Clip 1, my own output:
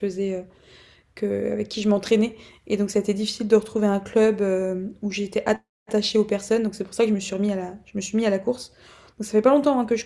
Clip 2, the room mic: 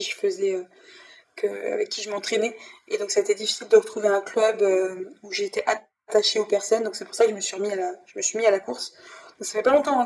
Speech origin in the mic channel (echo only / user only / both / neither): echo only